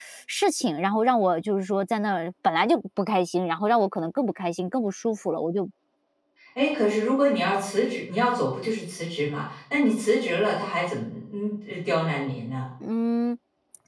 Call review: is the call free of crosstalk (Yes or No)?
Yes